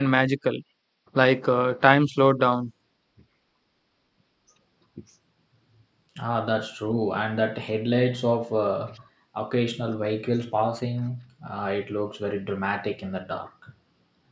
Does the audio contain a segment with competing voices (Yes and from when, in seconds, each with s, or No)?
No